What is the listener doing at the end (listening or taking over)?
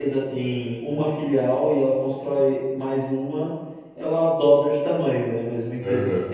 listening